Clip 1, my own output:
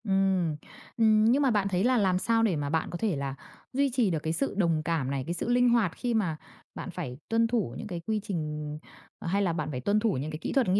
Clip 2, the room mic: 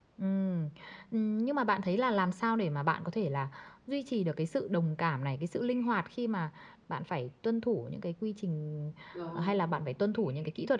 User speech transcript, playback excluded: đúng,

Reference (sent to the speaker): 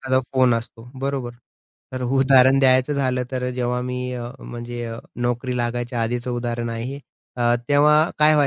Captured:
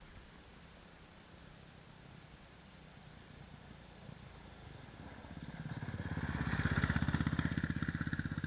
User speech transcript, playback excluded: none

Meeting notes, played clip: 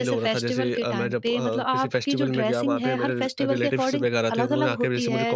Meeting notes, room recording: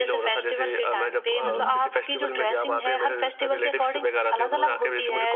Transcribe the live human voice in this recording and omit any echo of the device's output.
हुँ, हुँ।

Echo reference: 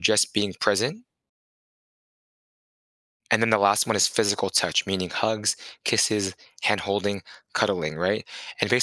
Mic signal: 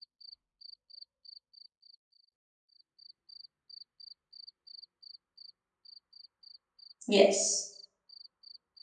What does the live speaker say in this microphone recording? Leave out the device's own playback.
Yes.

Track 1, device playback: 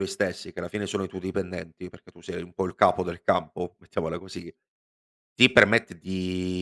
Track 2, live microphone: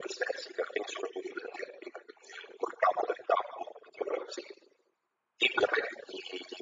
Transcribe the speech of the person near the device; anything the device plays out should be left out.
none

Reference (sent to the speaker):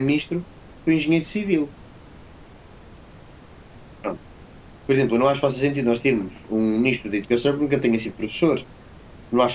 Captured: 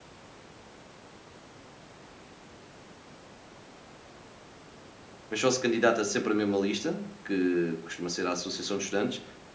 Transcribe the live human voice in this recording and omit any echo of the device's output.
mas só se candidata sempre a mesma lista, que costuma ser a associação de estudantes,

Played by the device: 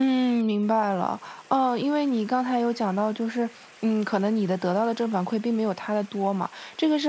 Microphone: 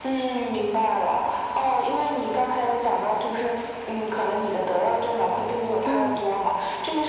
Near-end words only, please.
嗯

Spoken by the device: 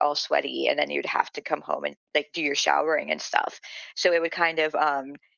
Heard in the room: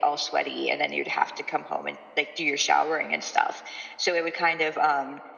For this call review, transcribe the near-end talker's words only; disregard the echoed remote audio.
none

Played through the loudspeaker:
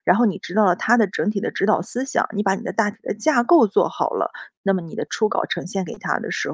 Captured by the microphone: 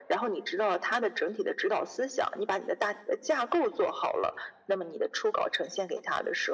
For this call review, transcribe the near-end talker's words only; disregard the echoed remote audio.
none

